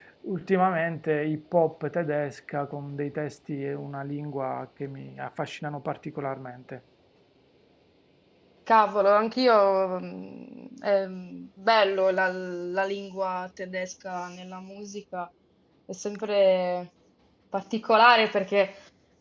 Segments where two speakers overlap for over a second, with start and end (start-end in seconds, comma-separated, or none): none